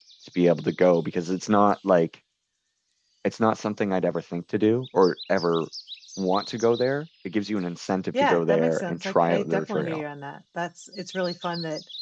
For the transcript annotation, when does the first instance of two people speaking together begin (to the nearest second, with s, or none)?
8 s